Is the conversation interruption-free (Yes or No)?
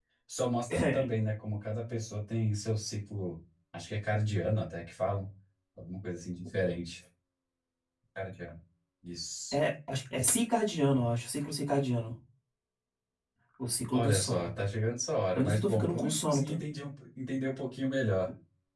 No